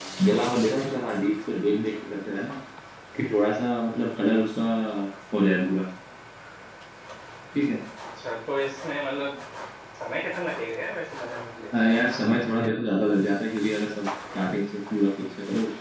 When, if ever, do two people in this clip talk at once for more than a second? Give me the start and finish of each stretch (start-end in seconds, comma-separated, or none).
none